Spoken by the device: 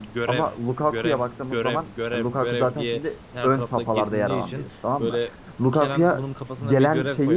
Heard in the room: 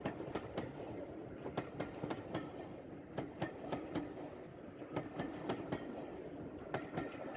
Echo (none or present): none